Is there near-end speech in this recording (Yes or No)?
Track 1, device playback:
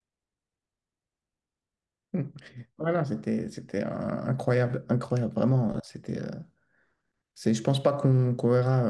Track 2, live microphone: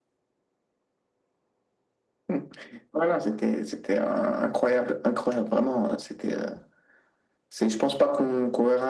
No